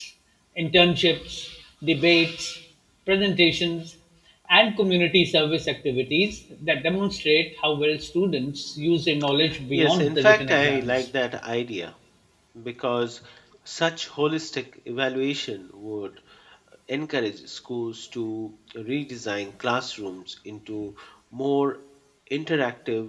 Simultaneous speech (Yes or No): Yes